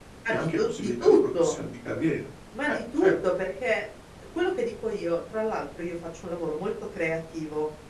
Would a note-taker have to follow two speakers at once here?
Yes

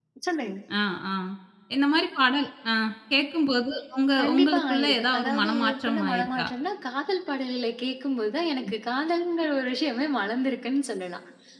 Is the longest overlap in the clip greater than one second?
Yes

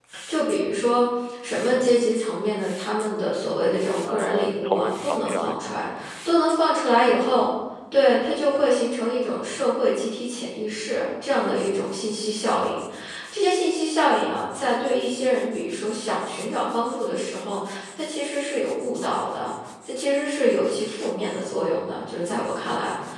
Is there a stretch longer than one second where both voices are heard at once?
Yes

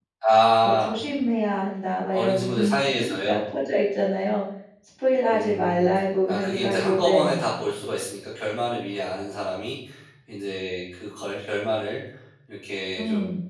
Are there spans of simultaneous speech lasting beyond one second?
Yes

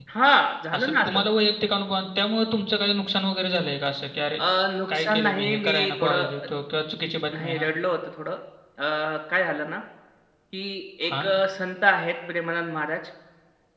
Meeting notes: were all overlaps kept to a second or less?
No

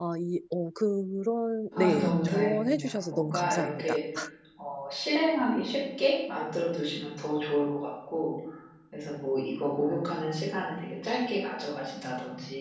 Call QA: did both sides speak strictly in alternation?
No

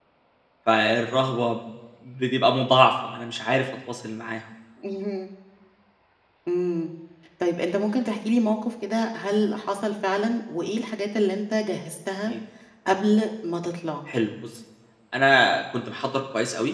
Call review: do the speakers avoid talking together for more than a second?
Yes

